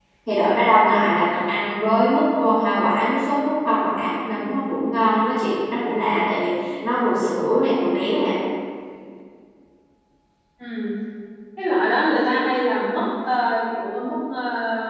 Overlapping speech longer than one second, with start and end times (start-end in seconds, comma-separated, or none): none